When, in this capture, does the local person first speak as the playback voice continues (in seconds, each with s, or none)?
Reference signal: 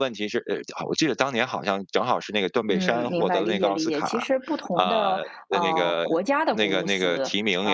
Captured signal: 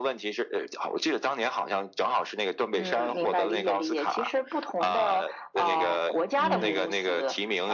6.4 s